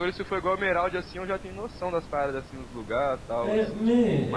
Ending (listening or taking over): taking over